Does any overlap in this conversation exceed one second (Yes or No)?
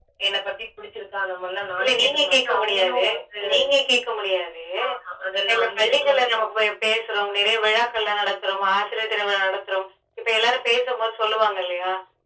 Yes